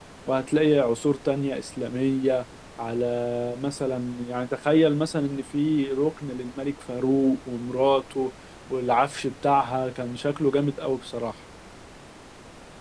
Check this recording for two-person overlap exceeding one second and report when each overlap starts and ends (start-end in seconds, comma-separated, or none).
none